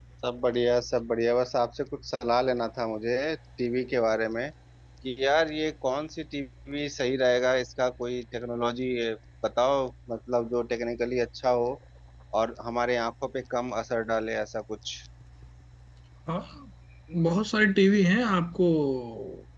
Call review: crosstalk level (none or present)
none